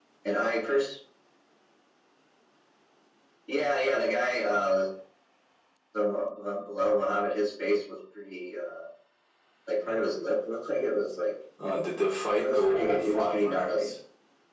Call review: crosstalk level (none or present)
present